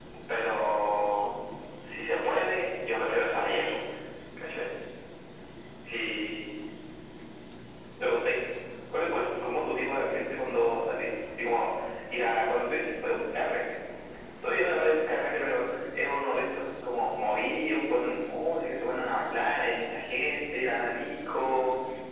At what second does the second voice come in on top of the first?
none

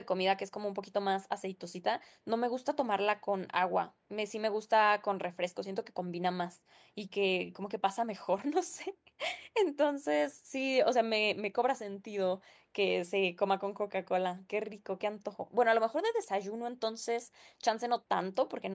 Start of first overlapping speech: none

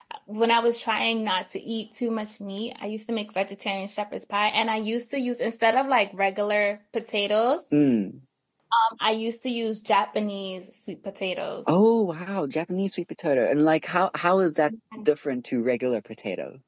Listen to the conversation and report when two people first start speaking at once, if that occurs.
none

